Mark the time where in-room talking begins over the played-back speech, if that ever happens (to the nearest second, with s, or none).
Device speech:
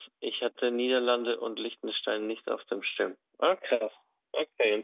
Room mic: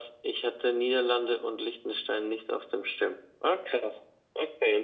none